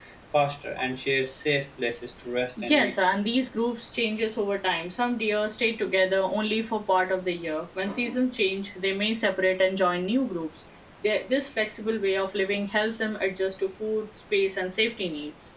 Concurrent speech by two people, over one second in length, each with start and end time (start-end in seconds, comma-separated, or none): none